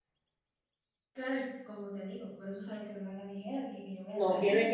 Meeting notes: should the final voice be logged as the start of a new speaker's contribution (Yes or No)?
Yes